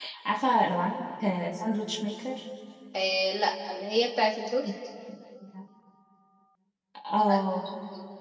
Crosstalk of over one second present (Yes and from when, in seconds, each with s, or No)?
No